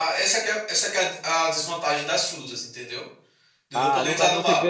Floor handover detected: Yes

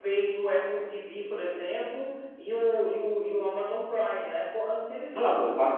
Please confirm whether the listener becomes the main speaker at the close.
Yes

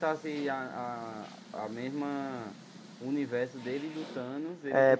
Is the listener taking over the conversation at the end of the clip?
Yes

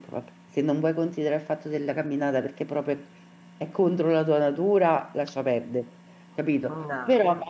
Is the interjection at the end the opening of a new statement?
No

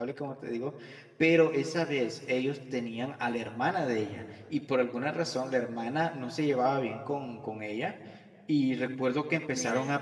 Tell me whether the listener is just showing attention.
Yes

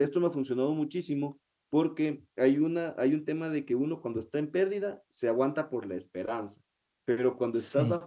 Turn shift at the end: No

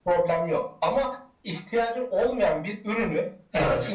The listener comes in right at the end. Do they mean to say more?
No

